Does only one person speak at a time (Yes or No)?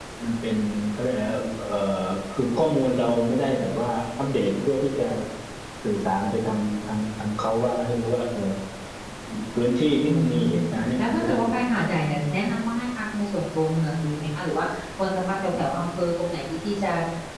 No